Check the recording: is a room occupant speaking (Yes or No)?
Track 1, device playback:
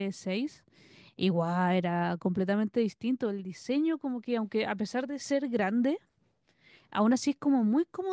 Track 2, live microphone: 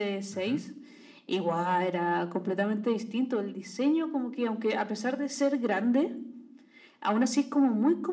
Yes